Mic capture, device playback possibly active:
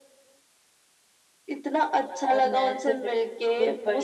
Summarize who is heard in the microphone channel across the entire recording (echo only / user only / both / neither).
both